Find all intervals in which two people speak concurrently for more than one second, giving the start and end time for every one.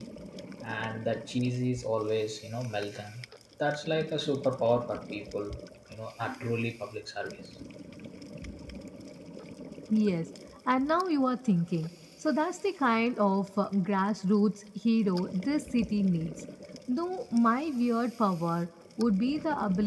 none

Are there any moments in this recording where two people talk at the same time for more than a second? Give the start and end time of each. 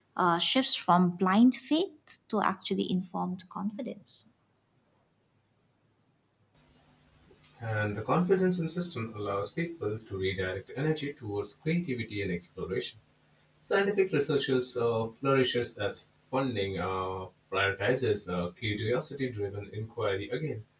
none

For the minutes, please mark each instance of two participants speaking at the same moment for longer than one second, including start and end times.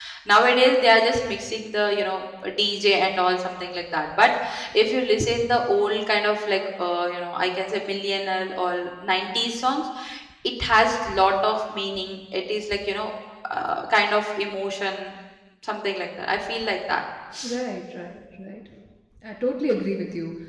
none

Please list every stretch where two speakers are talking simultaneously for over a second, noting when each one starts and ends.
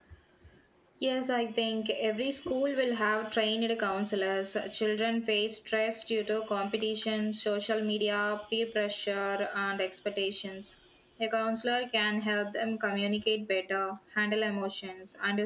none

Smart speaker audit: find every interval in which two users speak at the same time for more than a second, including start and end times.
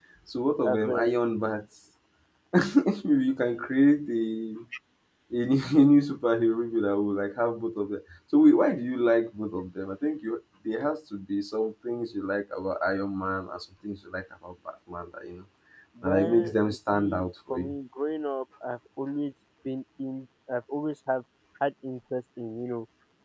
16.0-17.7

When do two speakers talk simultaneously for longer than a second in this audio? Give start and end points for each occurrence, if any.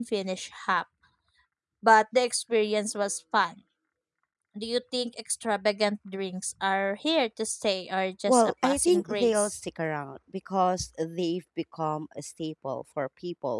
8.3-9.6

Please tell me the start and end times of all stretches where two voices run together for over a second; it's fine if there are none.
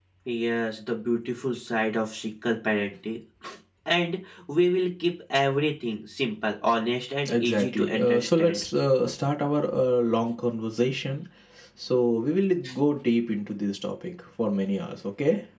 7.3-8.6

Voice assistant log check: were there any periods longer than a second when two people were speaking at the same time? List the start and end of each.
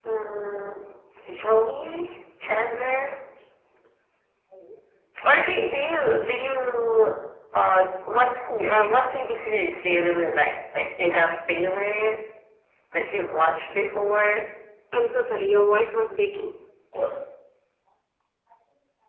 none

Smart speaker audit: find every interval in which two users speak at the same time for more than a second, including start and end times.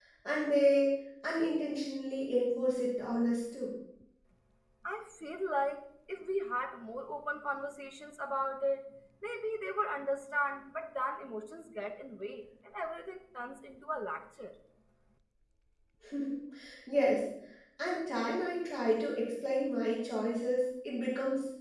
none

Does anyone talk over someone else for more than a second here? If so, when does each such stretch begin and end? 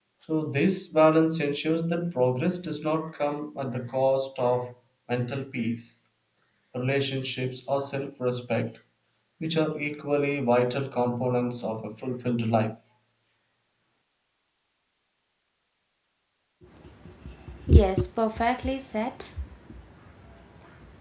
none

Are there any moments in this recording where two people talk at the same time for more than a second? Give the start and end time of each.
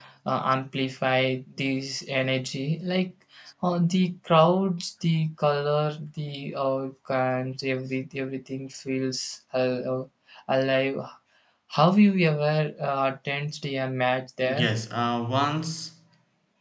none

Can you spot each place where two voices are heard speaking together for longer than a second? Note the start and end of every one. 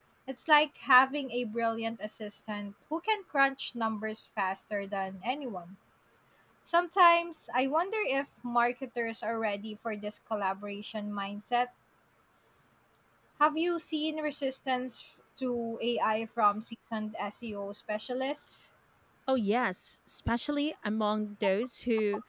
none

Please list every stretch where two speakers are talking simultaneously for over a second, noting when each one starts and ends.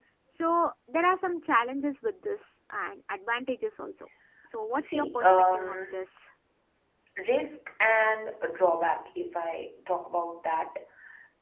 4.8-6.0

